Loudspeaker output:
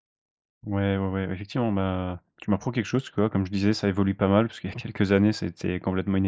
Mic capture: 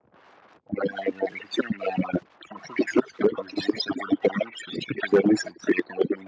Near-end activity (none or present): none